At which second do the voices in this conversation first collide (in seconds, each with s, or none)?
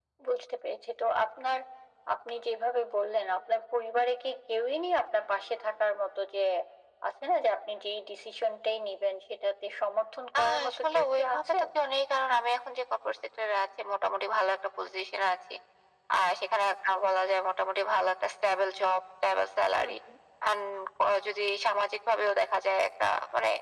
10.3 s